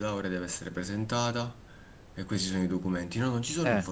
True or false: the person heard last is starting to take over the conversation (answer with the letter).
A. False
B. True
A